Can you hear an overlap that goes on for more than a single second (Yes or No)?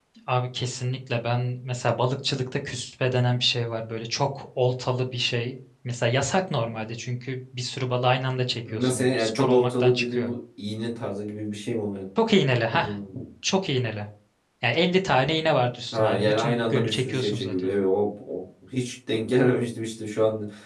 Yes